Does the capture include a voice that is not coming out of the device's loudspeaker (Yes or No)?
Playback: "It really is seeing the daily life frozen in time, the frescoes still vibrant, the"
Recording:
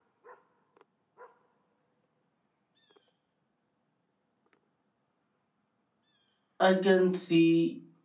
Yes